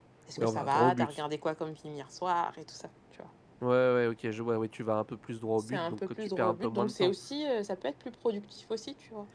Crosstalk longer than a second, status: present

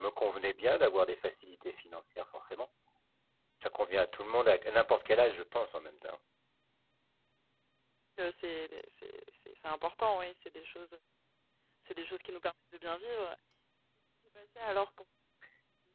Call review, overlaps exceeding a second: none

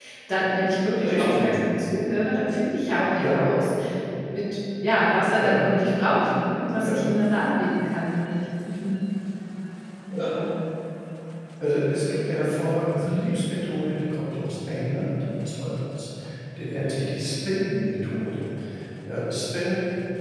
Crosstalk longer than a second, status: none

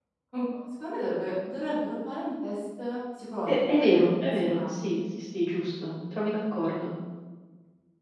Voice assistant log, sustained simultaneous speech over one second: present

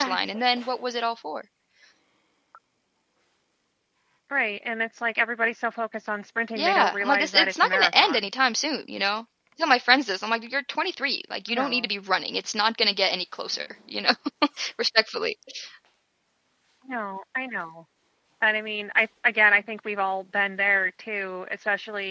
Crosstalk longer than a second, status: present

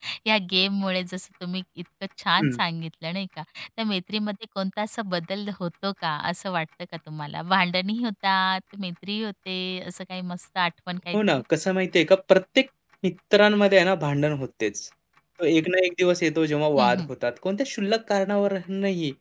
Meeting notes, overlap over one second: none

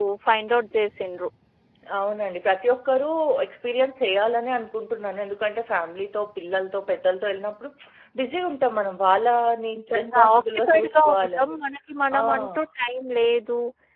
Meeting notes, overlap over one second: present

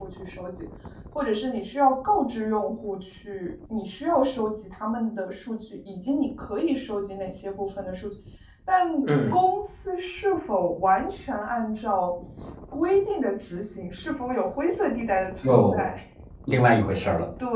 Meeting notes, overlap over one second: none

